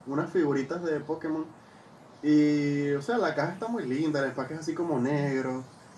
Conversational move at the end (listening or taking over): listening